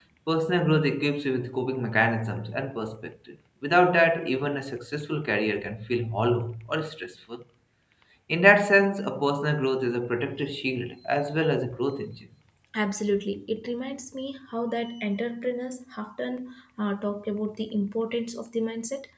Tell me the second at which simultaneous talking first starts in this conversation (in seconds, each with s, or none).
none